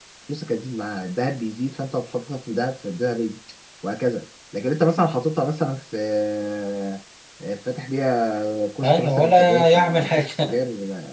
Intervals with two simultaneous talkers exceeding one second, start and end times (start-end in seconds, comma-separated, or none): 8.8-10.6